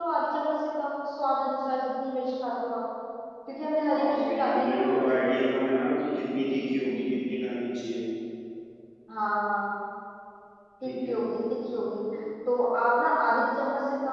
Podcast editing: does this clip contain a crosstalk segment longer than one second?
Yes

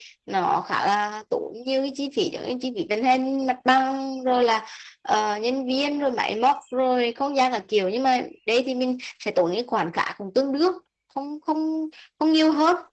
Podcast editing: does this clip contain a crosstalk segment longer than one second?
No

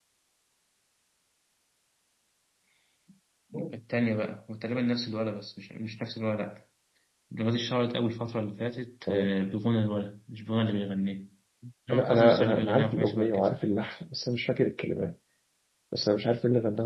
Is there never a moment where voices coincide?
No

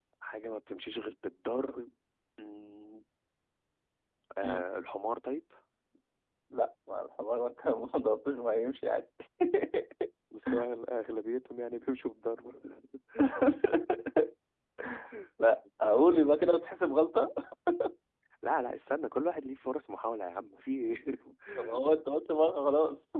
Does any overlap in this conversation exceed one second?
No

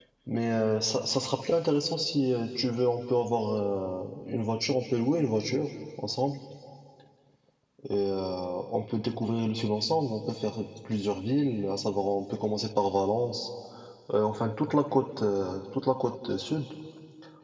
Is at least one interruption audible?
No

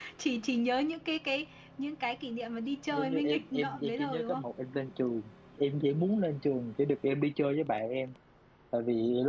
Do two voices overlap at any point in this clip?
Yes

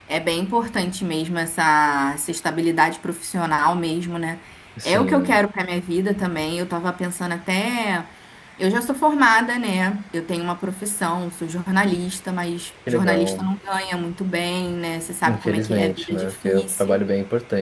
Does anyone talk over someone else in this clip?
Yes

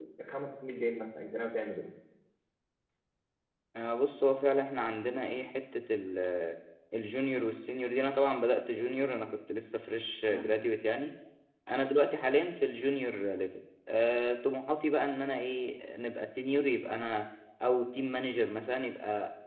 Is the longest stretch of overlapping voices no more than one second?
Yes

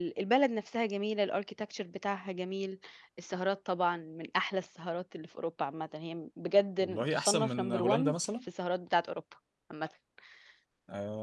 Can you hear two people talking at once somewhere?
Yes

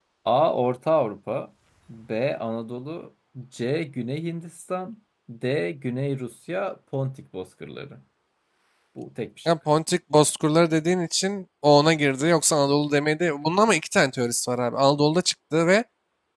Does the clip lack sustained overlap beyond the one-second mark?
Yes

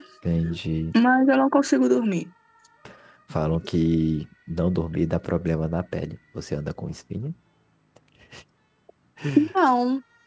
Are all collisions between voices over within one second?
Yes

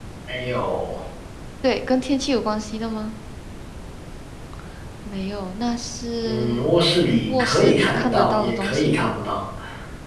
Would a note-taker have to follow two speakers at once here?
Yes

